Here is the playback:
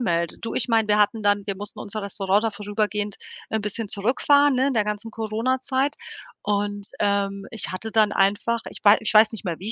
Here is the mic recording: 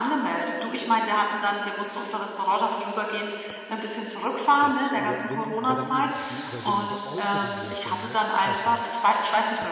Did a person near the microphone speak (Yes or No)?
Yes